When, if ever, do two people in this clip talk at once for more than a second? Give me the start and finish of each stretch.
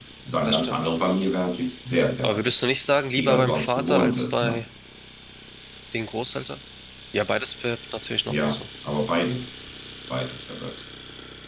3.2-4.6

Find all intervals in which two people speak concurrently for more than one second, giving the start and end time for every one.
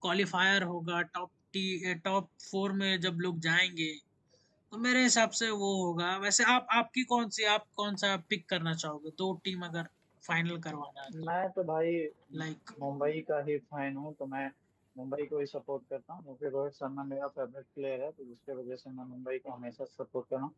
none

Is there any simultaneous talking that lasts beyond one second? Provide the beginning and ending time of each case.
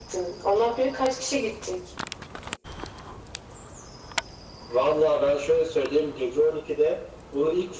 none

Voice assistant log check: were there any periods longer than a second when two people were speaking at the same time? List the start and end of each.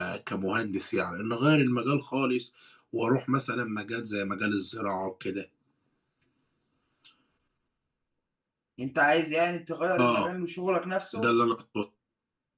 none

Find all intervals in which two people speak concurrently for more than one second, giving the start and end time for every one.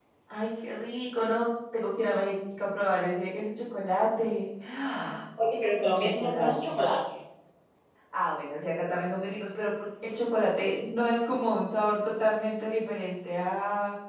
5.5-6.8

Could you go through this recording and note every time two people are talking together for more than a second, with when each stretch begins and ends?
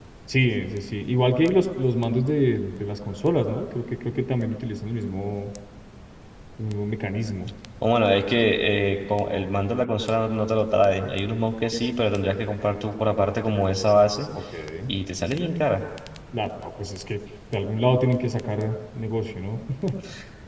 none

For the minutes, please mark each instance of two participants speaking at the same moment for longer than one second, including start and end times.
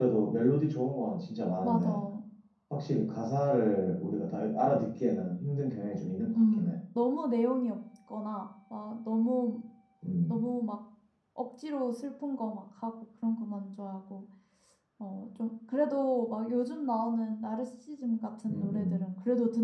none

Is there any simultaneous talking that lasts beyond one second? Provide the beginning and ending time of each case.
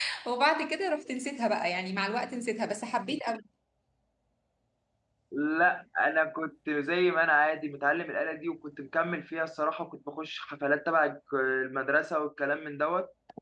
none

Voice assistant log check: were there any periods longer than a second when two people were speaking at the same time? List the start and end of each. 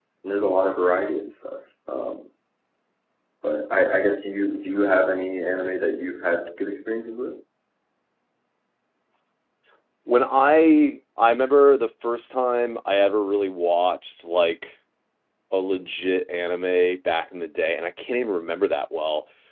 none

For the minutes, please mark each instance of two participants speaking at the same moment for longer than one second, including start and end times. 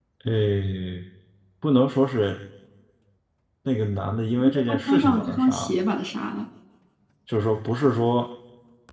4.4-5.8

